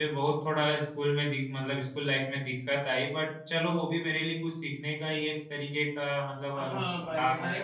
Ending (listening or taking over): taking over